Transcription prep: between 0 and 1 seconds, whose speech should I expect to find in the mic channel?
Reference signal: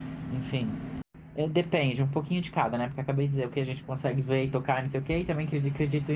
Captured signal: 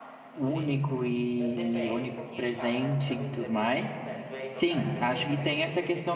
both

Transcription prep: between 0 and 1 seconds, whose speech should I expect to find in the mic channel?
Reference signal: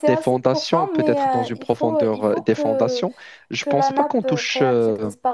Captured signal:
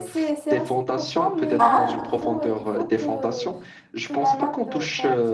echo only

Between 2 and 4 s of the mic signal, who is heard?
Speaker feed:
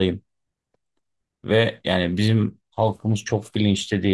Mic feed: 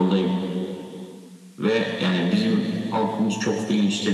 echo only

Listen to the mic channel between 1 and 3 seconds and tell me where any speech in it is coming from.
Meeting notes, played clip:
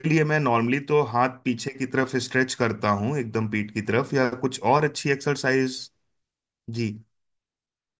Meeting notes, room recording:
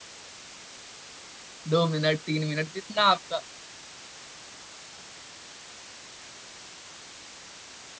user only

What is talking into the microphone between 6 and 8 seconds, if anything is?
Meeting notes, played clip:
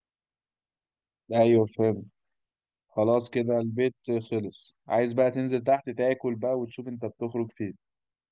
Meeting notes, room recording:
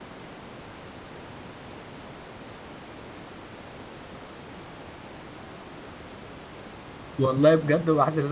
user only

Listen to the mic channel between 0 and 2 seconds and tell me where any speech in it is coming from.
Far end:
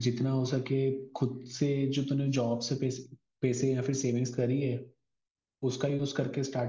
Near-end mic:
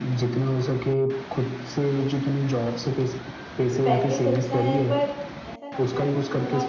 echo only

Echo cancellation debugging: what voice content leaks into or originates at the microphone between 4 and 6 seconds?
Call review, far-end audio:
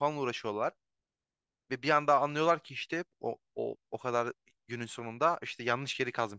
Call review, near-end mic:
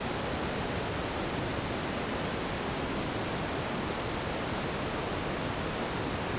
neither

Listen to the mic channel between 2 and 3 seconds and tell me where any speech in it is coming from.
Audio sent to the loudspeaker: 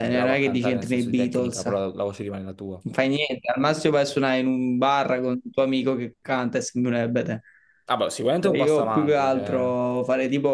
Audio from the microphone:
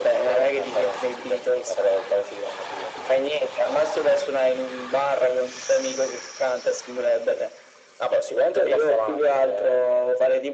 echo only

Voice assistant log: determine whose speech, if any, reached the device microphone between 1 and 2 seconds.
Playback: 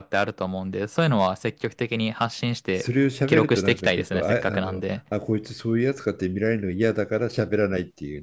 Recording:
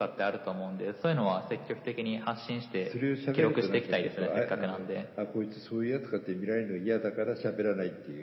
echo only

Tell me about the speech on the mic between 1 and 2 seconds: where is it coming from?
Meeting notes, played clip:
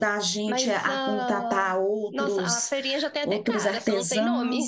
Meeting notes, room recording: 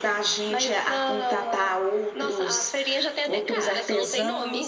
echo only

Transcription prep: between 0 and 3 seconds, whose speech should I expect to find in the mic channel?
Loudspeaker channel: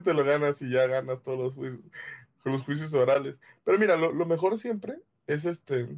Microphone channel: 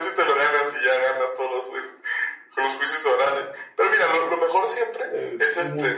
echo only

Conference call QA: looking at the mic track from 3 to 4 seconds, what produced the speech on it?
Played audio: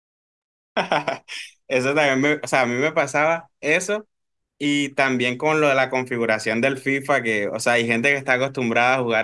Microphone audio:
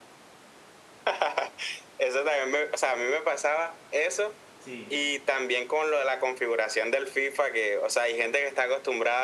echo only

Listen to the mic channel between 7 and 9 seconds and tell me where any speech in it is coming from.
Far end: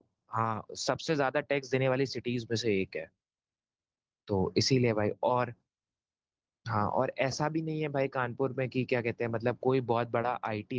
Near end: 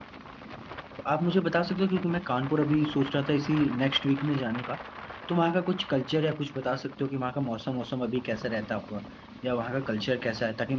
user only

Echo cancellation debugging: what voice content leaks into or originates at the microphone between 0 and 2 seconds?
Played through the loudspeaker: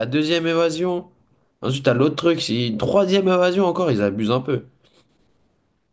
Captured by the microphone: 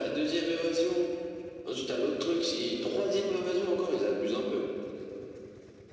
echo only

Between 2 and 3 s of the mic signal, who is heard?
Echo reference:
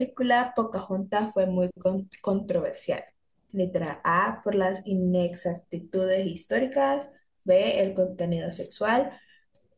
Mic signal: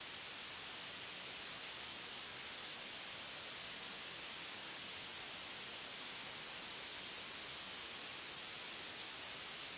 neither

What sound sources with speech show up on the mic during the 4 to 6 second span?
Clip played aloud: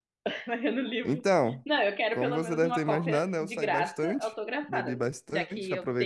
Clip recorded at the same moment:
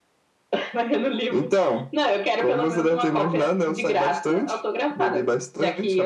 echo only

